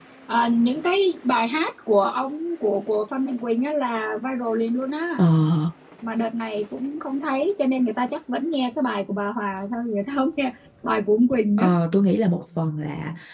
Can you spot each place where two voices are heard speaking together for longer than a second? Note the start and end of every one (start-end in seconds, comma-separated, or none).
none